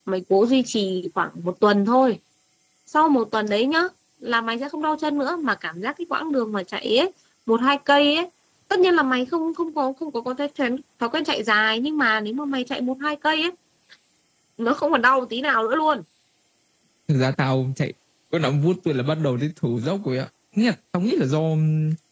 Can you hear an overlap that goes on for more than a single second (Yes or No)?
No